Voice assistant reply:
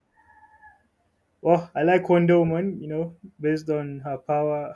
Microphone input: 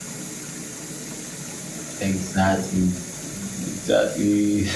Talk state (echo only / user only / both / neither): user only